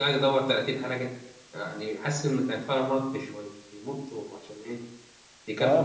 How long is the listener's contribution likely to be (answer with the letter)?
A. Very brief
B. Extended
B